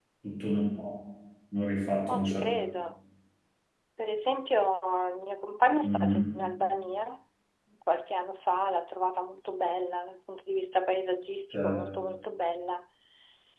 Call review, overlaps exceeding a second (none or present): none